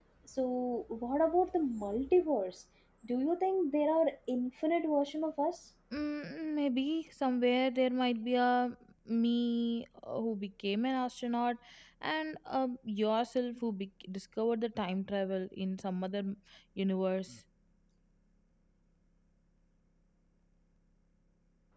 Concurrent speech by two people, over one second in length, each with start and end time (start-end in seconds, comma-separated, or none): none